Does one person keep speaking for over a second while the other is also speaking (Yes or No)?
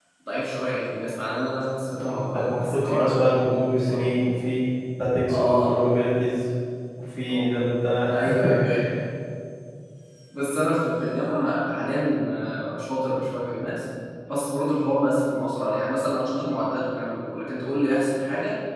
Yes